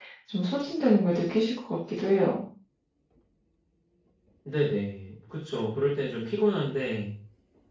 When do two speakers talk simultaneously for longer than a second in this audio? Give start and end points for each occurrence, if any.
none

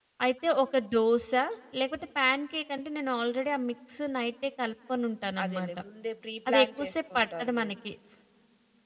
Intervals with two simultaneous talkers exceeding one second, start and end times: 6.5-7.7

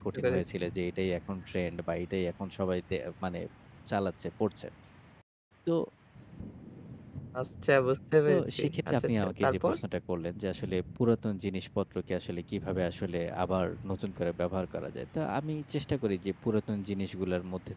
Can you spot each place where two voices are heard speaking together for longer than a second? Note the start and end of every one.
8.3-9.7

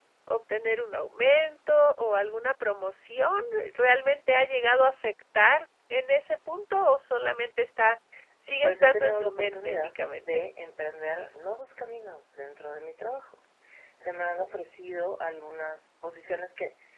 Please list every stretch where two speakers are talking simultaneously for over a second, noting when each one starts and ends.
8.6-10.4

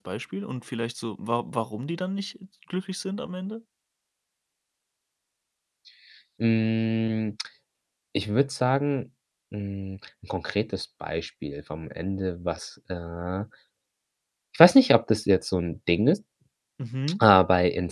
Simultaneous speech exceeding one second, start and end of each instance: none

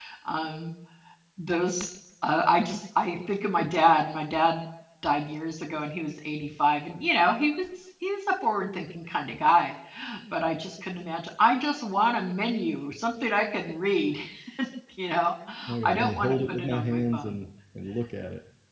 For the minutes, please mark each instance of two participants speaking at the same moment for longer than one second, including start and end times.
15.8-17.4

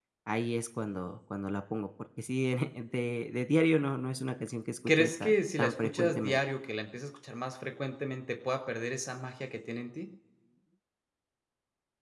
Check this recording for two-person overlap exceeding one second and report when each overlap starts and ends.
5.0-6.4

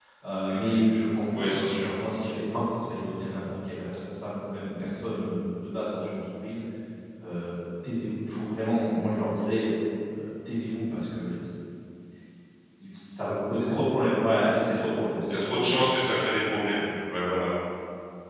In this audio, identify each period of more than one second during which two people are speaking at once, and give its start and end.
none

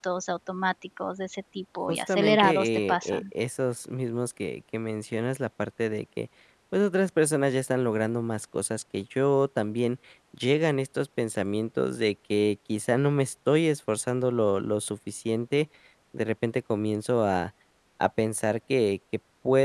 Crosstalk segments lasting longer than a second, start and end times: 1.9-3.2

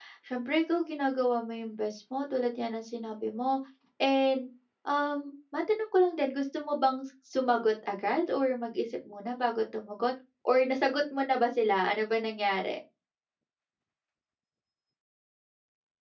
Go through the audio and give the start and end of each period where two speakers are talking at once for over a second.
none

